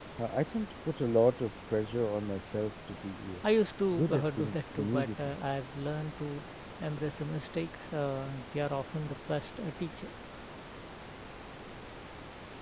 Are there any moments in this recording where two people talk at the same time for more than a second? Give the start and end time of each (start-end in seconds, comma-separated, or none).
3.9-5.4